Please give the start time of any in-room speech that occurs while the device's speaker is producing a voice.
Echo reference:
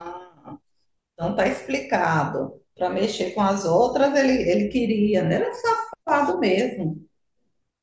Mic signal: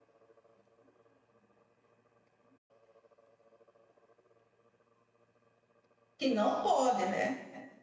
6.2 s

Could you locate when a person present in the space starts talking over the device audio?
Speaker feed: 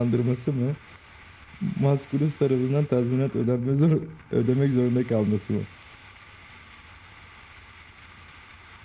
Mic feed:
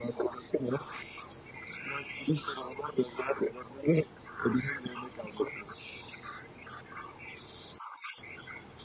none

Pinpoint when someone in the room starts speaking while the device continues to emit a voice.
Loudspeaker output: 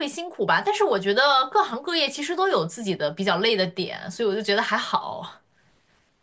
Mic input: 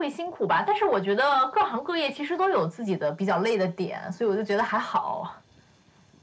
none

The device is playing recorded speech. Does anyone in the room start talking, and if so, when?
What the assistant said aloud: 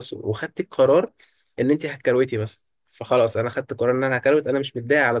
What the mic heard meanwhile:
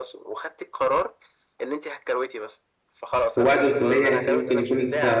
3.3 s

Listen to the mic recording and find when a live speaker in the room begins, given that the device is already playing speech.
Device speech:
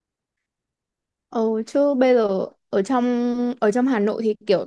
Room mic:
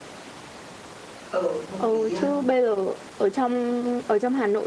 1.3 s

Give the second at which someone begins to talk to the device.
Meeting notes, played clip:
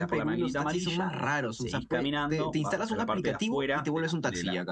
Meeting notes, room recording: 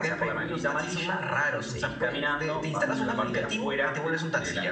2.8 s

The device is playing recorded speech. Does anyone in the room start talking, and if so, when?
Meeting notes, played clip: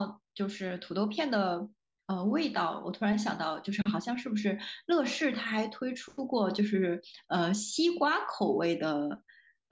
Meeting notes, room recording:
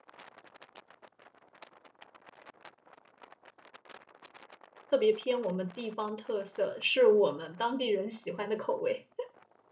4.9 s

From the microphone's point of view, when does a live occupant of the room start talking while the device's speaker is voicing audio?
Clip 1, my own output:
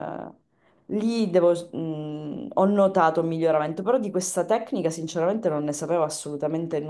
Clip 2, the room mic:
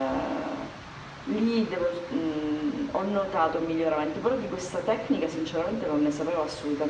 none

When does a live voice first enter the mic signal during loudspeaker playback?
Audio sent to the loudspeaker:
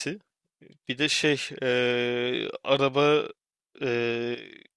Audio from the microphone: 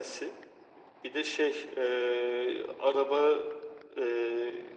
none

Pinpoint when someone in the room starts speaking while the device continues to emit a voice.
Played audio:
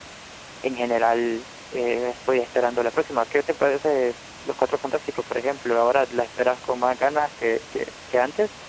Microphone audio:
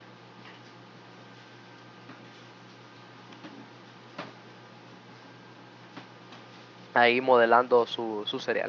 6.9 s

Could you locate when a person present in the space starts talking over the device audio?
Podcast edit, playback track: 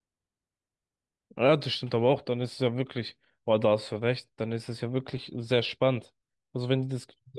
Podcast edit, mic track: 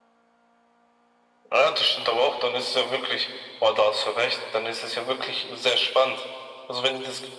none

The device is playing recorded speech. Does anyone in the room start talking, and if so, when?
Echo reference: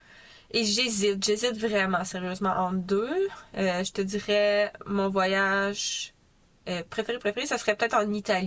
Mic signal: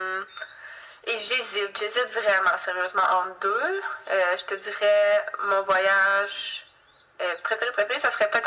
none

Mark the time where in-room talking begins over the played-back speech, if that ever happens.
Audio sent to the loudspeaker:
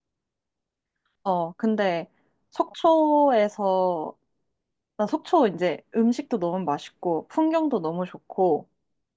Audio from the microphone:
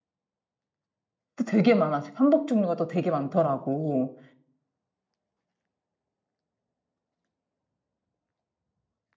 1.4 s

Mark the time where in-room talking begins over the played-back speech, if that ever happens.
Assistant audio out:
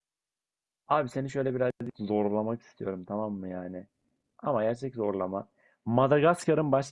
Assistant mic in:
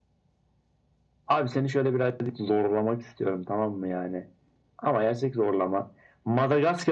none

